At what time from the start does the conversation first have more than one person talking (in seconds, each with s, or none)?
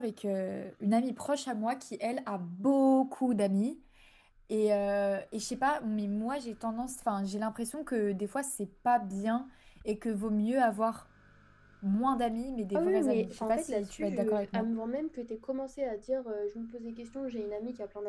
12.7 s